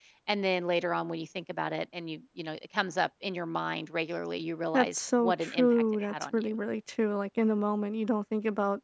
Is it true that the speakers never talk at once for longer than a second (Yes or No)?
No